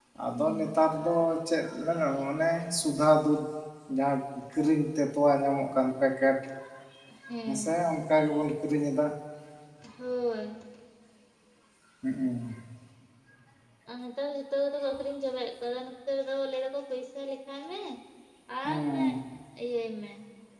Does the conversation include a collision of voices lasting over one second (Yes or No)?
No